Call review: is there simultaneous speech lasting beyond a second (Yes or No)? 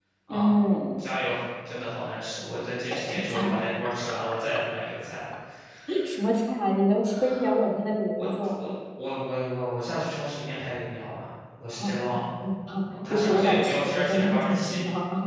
Yes